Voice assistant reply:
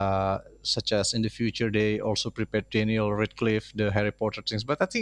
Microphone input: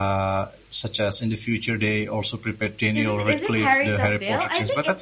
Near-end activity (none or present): present